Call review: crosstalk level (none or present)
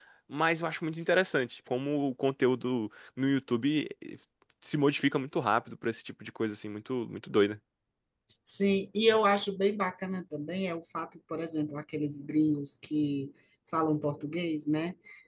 none